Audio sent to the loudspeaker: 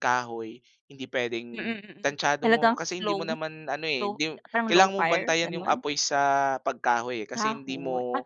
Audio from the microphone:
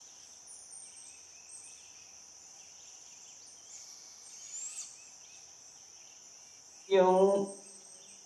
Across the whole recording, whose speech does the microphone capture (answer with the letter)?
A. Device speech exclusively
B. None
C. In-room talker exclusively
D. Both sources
C